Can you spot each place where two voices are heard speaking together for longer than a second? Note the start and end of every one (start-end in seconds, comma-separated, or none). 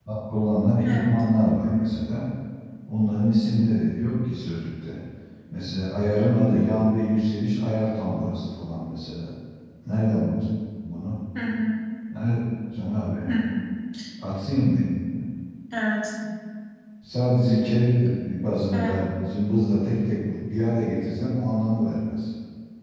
none